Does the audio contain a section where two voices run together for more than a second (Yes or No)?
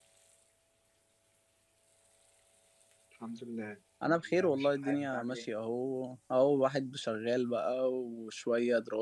Yes